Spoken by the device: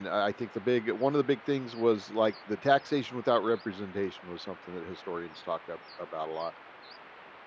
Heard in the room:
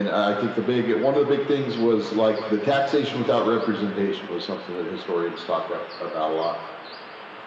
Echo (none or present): present